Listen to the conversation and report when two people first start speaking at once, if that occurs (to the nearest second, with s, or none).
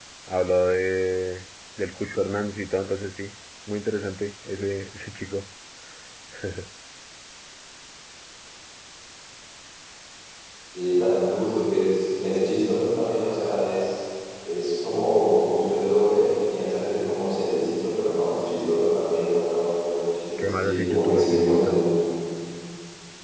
20 s